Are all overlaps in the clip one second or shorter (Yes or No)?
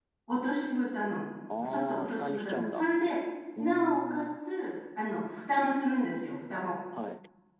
No